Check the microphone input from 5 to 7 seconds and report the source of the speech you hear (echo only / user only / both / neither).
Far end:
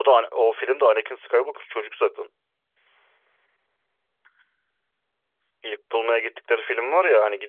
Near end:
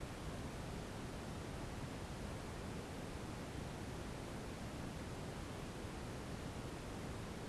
neither